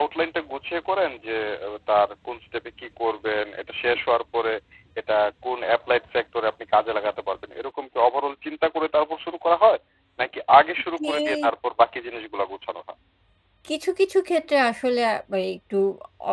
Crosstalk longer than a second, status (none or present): none